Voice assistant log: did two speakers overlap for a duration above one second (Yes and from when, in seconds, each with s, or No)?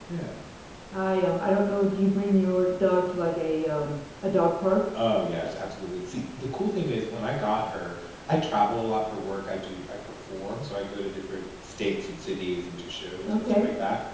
No